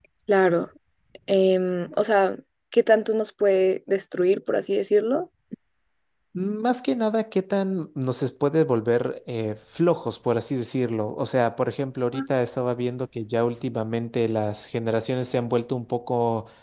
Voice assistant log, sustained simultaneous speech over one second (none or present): none